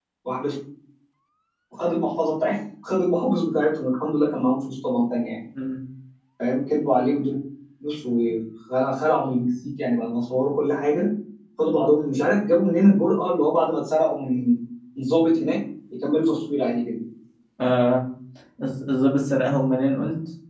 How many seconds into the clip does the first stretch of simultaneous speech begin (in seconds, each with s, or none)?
none